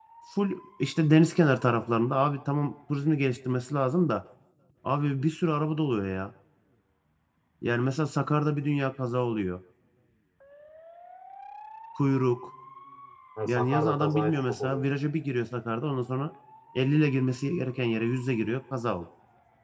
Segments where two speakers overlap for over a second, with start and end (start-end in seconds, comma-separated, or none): 13.5-14.9